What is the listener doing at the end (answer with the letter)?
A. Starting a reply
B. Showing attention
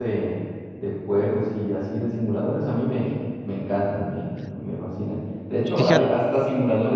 B